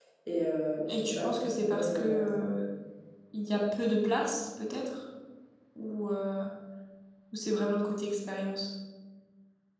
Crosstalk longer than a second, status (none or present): present